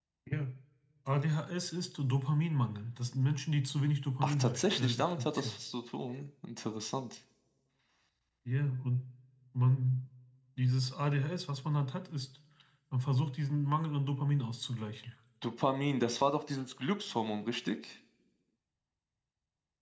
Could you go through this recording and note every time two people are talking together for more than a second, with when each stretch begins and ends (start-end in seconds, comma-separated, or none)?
4.2-5.5